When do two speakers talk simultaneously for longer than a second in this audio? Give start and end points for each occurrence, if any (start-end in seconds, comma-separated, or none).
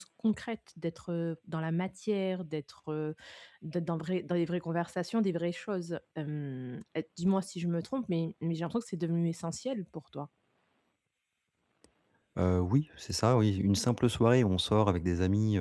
none